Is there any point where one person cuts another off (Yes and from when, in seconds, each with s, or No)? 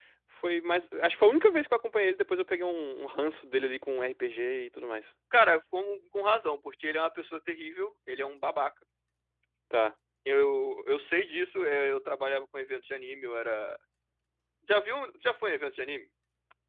No